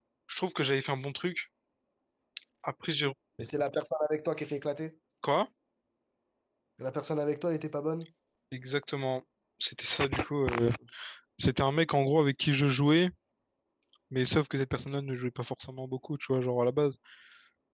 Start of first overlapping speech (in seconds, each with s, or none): none